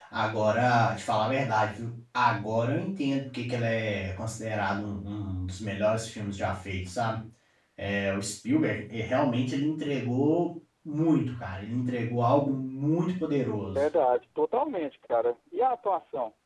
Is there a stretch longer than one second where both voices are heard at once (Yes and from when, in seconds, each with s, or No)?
No